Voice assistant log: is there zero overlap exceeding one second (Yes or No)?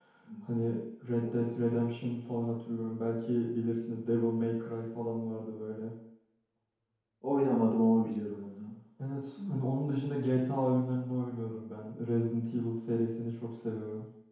Yes